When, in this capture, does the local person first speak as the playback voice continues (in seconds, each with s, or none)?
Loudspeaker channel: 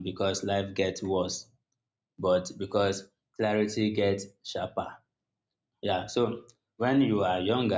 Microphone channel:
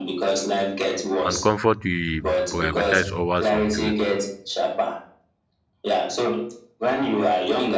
1.2 s